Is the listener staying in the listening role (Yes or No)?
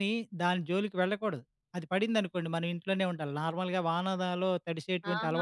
No